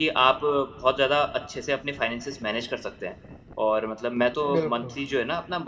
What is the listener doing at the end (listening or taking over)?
listening